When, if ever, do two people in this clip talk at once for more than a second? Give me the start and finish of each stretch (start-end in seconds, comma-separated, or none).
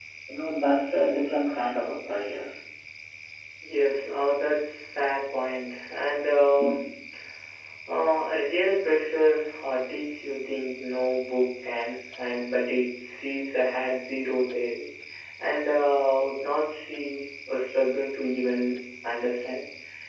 none